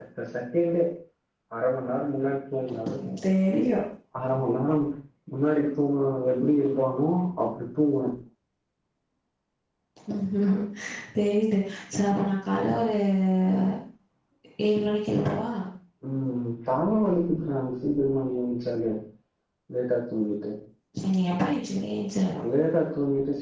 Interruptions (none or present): none